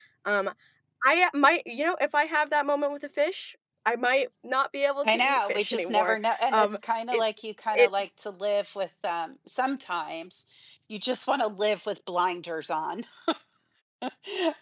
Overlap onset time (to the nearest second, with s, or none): 5 s